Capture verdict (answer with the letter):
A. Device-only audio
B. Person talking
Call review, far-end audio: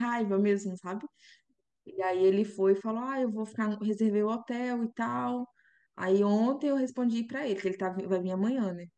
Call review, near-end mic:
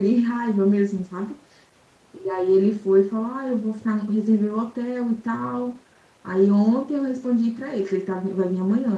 A